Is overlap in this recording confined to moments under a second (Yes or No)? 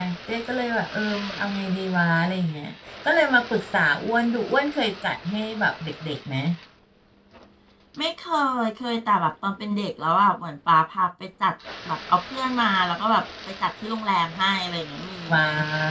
Yes